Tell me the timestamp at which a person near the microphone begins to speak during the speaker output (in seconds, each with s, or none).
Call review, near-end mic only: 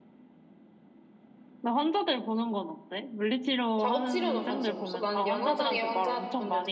3.8 s